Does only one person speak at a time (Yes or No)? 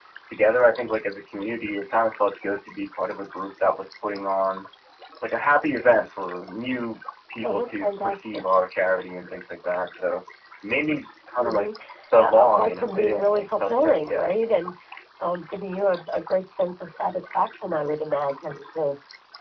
No